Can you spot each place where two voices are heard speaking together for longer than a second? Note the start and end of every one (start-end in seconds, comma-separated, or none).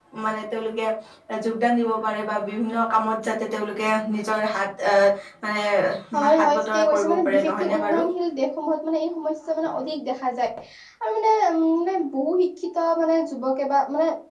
6.4-8.0